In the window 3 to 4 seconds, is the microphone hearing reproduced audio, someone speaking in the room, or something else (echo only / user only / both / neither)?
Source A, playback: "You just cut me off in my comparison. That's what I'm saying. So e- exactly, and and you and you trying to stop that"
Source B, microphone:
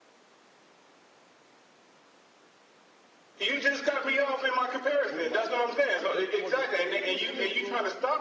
echo only